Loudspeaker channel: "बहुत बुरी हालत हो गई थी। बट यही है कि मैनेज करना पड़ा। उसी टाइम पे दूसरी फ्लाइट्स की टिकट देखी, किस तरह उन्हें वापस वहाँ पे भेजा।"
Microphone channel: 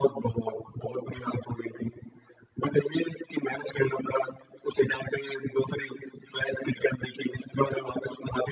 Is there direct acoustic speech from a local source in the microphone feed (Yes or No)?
No